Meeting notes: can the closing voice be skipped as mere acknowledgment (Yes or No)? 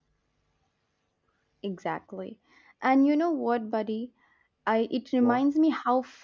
Yes